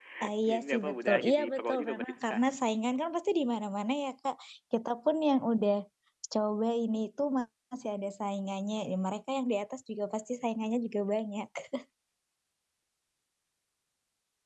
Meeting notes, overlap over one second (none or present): present